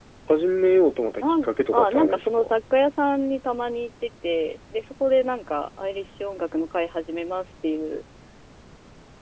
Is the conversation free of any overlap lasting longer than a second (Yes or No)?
No